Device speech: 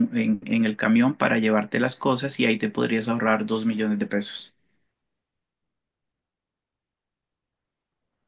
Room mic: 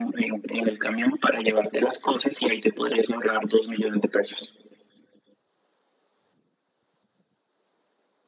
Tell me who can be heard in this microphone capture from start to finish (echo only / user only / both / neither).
echo only